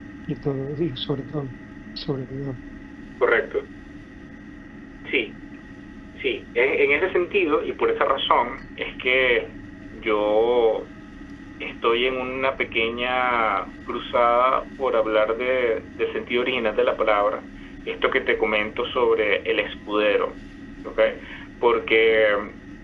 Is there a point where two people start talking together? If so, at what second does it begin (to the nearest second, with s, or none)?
none